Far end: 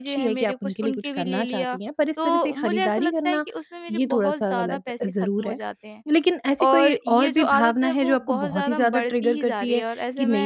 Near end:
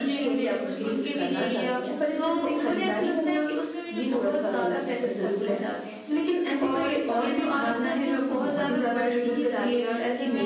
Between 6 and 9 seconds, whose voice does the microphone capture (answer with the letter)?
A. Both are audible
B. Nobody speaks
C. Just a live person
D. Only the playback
D